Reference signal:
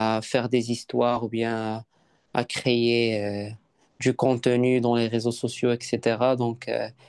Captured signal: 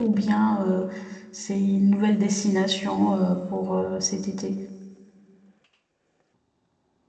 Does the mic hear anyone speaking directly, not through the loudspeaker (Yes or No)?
Yes